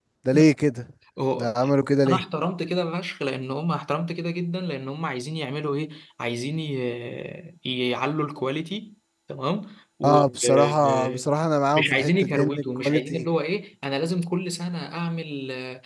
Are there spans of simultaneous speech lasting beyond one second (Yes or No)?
Yes